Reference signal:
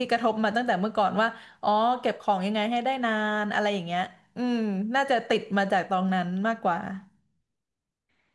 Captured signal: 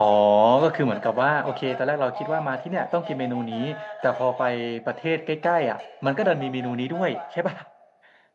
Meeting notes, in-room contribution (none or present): present